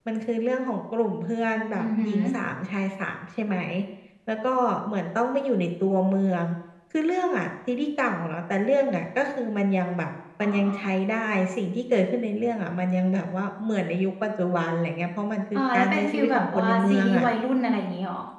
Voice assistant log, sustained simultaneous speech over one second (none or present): present